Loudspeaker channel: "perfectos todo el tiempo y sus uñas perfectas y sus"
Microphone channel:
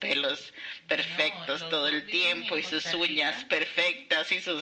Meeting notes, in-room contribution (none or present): present